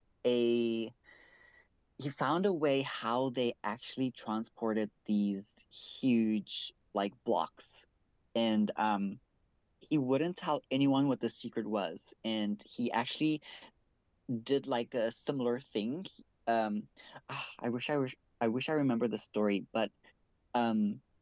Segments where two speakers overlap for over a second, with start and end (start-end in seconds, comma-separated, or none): none